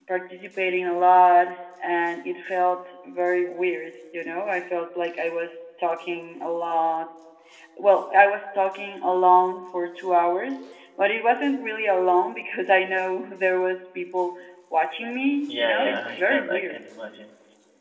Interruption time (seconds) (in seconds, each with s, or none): 15.5 s